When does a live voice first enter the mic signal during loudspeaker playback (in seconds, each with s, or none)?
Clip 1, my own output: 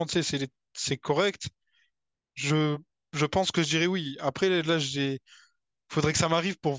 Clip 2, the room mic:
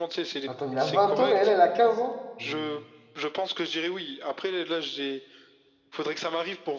0.5 s